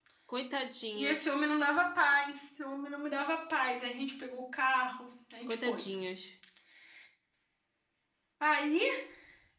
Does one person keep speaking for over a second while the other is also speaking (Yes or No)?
No